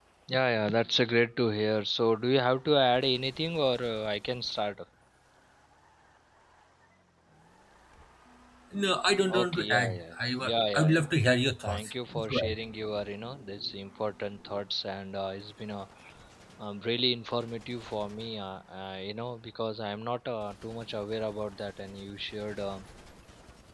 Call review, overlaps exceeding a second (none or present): present